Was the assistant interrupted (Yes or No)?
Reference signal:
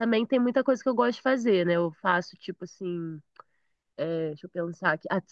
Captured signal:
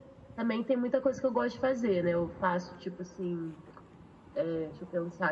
No